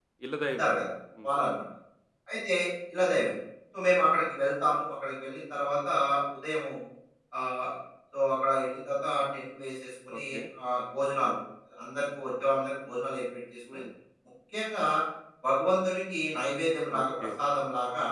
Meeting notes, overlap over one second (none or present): none